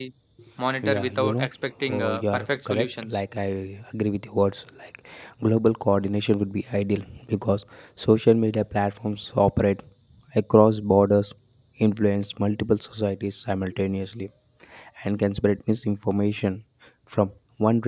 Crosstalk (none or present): present